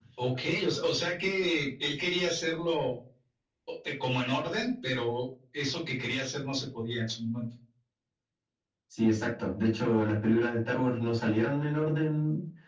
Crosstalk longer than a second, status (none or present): none